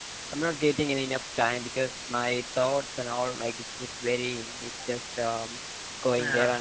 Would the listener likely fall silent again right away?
Yes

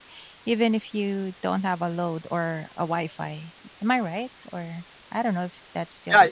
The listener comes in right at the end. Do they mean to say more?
Yes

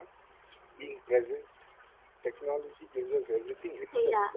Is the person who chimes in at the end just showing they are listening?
No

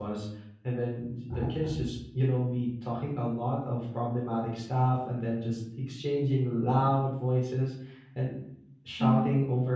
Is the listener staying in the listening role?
Yes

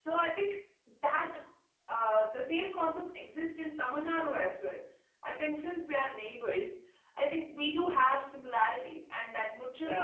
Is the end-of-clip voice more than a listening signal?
No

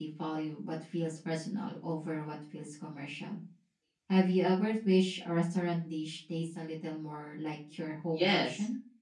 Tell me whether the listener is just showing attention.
No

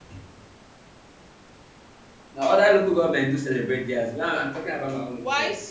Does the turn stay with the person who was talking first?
No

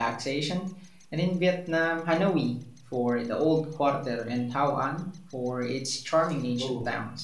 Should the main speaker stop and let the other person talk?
Yes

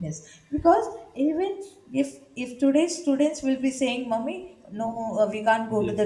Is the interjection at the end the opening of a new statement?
No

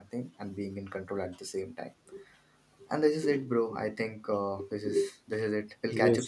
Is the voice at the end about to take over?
Yes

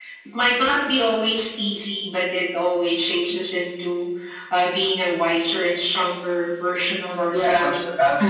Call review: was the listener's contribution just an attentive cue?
No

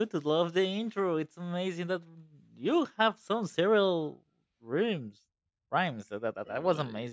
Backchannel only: Yes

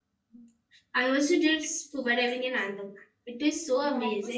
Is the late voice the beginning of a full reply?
Yes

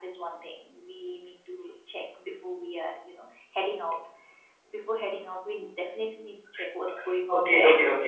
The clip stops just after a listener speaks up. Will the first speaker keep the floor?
No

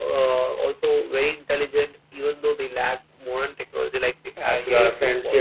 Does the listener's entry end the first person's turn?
Yes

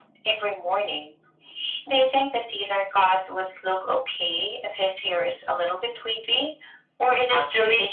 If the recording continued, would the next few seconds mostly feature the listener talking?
Yes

